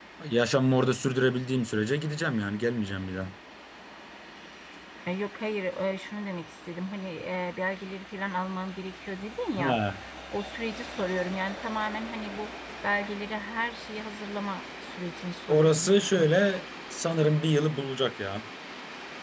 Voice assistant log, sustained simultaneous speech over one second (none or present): none